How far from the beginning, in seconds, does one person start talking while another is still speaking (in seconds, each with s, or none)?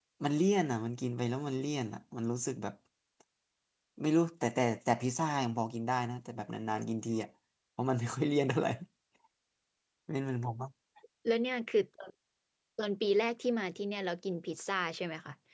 none